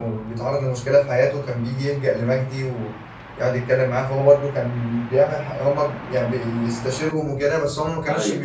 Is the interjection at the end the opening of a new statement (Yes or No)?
No